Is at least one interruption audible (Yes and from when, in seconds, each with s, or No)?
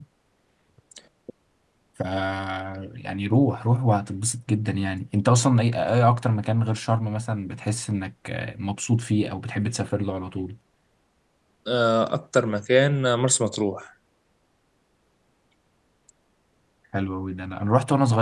No